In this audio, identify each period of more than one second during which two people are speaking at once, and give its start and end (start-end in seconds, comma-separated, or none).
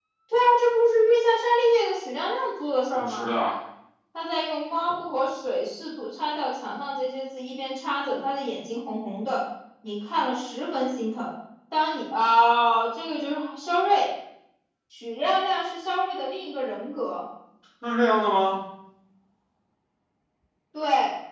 none